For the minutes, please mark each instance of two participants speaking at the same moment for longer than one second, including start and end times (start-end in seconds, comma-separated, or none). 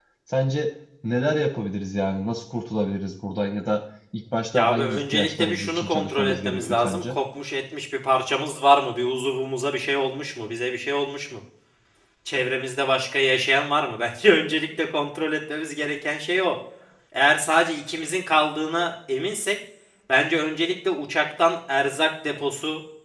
4.5-7.2